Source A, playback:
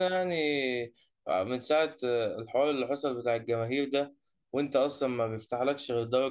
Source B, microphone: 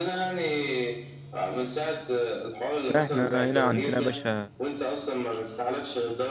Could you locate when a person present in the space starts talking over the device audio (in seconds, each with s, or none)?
3.0 s